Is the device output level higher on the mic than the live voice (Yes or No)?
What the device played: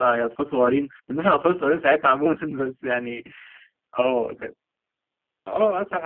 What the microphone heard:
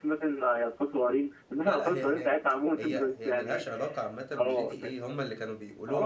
Yes